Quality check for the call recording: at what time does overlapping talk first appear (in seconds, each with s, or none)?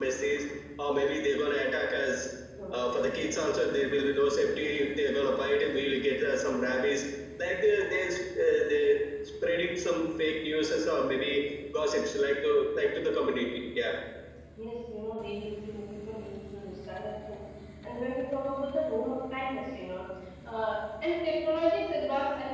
none